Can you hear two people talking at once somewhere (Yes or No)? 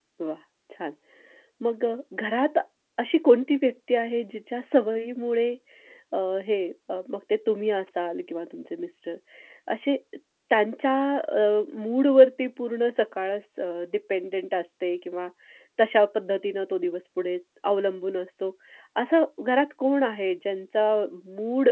No